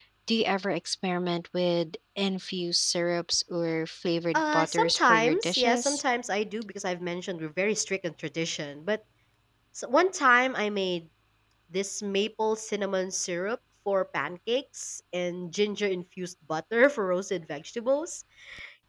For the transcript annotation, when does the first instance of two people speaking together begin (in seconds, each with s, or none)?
4.3 s